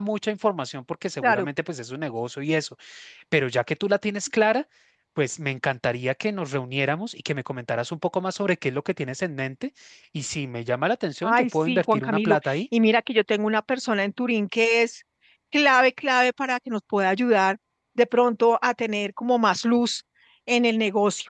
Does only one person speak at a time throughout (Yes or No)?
No